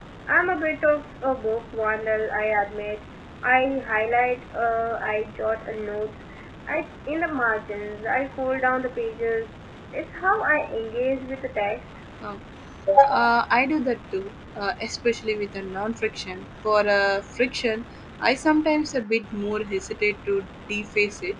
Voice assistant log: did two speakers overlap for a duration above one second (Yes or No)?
No